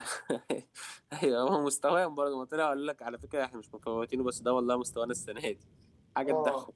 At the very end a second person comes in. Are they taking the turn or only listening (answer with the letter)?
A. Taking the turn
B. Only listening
A